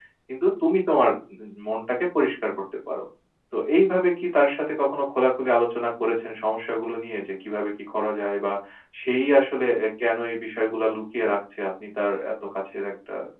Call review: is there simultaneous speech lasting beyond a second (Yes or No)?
No